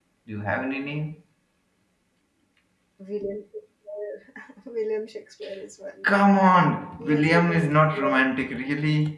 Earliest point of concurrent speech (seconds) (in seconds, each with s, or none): 7.0 s